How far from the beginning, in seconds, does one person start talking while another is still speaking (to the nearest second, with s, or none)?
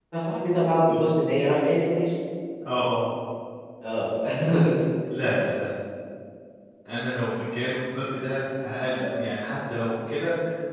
none